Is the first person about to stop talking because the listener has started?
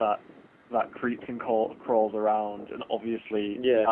No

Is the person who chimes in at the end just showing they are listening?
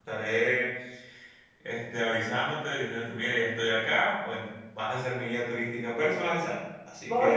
No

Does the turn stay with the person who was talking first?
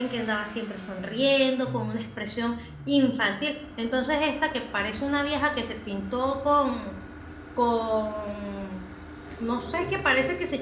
Yes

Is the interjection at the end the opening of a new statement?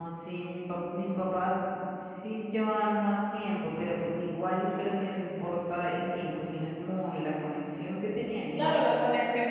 Yes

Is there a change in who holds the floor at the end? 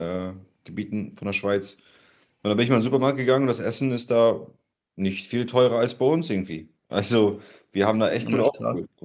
No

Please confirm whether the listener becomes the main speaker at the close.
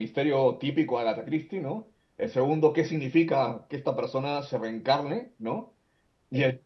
No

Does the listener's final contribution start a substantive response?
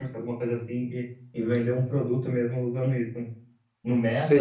Yes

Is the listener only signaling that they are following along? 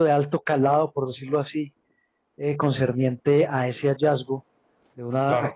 Yes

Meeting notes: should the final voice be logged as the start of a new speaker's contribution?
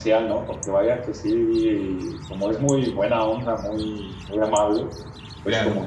No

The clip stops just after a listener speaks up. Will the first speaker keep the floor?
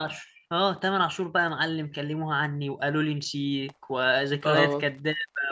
Yes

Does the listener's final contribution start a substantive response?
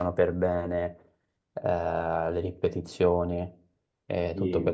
No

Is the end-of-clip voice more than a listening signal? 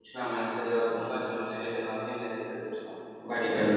Yes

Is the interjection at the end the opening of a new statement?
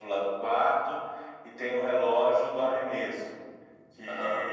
No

